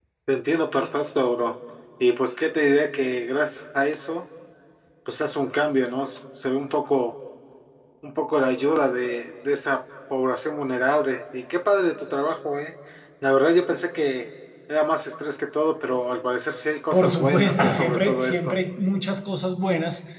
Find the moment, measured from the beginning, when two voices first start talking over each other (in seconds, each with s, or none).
16.9 s